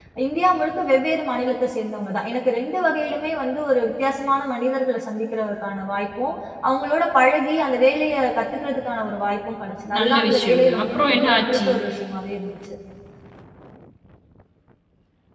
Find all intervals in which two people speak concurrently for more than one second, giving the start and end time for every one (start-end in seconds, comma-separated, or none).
10.0-11.7